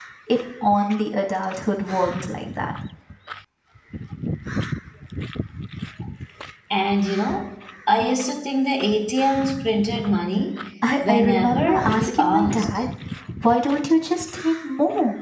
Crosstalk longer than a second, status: present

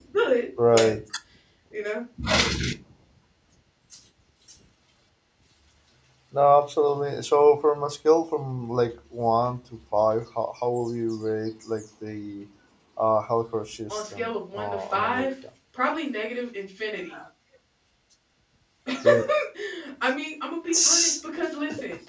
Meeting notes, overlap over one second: present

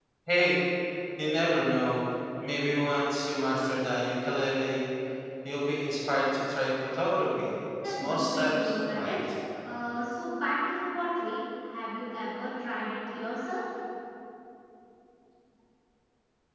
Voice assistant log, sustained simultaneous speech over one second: present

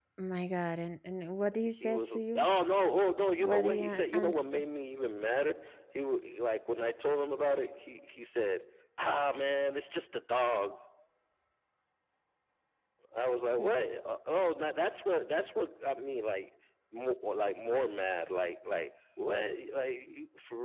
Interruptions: present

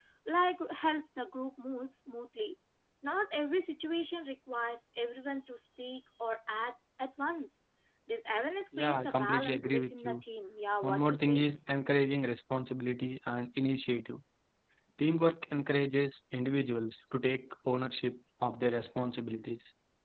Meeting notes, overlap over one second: present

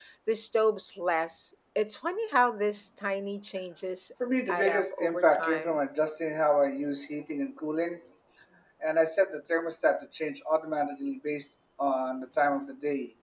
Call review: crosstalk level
present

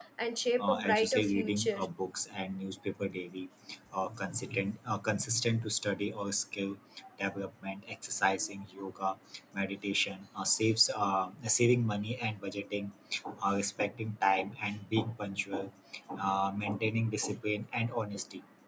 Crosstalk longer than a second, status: present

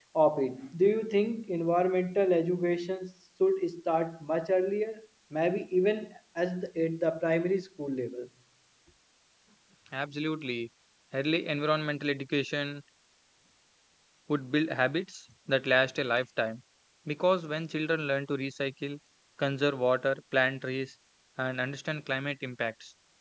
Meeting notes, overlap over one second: none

